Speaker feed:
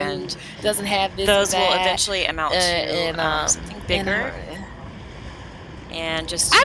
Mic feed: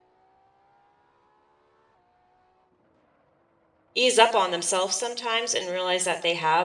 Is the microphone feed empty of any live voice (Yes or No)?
No